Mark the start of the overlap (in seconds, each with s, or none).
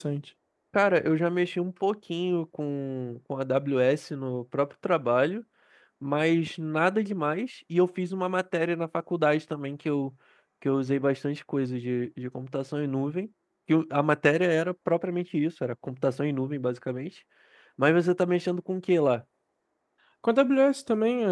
none